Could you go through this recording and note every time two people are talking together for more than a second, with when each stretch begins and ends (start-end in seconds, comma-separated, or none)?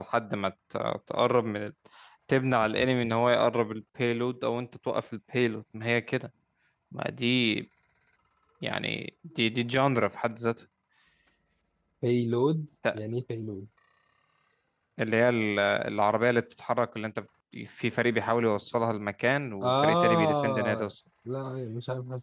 19.6-20.9